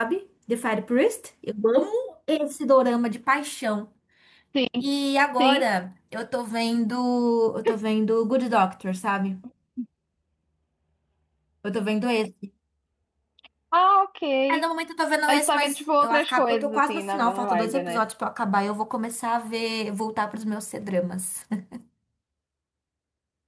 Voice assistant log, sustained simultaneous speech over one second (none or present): present